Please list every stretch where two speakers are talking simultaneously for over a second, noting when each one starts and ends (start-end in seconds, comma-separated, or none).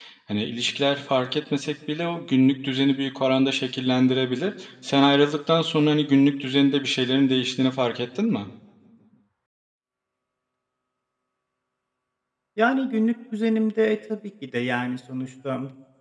none